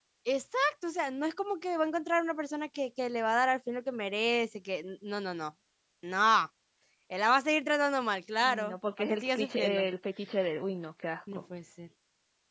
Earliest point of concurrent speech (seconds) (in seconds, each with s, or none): 8.4 s